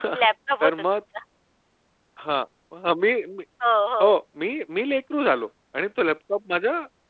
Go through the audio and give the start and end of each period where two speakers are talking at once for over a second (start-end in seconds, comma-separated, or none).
none